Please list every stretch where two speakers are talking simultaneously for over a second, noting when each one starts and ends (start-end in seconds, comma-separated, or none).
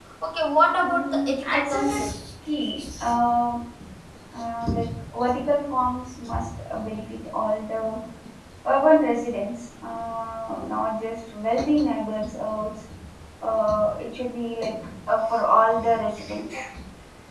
0.8-2.0